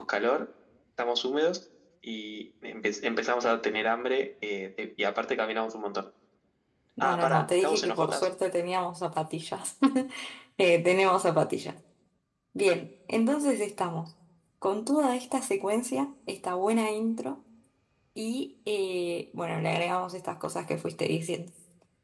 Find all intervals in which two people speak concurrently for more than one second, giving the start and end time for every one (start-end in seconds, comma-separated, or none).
7.0-8.3